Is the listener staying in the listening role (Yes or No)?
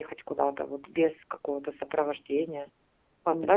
No